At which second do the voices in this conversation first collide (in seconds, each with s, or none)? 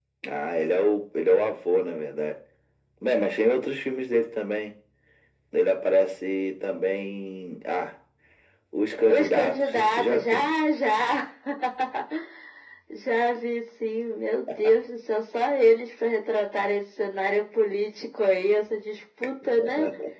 9.1 s